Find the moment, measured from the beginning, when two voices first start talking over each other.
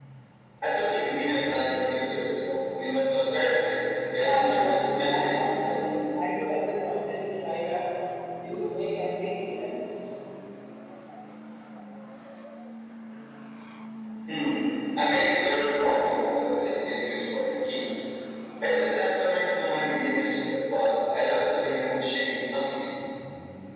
4.1 s

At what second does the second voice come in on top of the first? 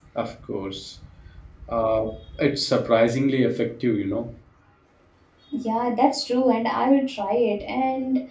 none

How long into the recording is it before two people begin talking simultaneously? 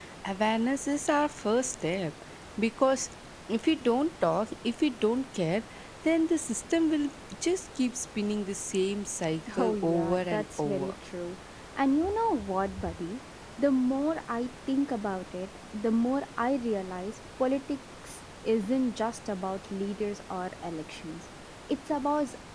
9.6 s

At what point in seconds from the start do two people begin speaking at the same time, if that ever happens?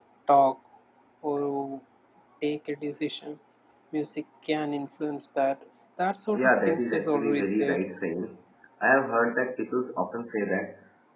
6.3 s

